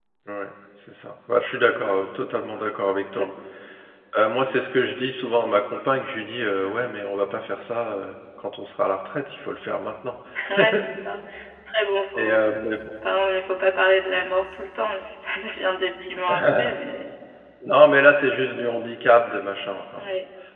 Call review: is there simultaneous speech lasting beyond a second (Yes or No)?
No